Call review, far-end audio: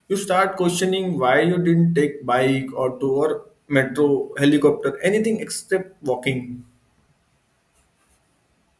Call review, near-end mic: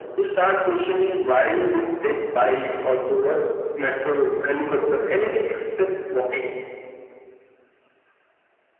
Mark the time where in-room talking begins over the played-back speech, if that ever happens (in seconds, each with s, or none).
none